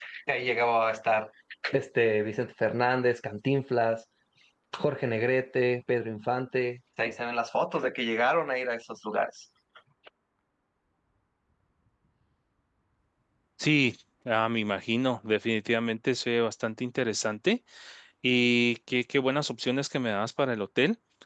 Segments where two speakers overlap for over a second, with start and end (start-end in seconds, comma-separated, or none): none